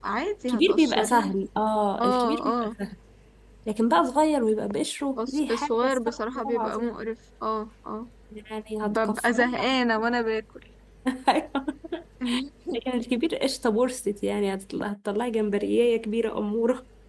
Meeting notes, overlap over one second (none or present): present